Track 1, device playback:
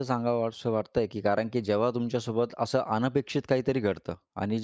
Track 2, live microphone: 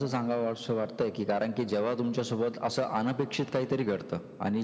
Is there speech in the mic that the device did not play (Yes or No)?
No